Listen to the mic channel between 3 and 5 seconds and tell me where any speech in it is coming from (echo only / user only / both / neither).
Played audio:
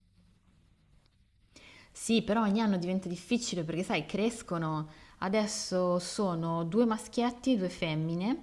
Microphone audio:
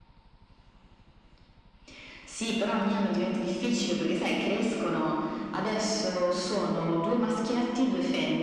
echo only